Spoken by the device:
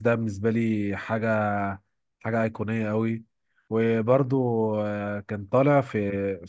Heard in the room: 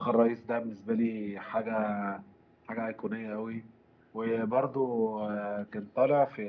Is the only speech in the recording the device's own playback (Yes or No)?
Yes